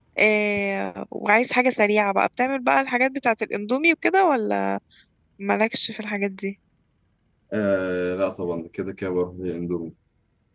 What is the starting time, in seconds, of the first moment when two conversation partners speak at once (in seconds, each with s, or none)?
none